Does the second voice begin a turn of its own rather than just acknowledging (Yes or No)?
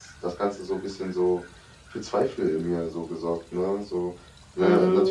Yes